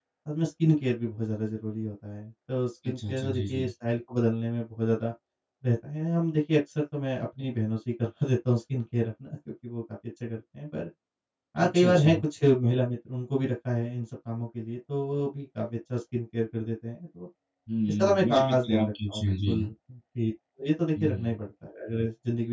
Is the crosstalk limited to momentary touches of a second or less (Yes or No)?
No